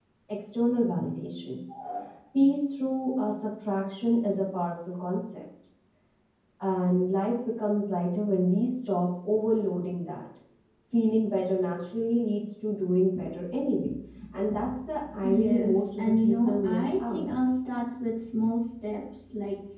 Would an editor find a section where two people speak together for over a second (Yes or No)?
Yes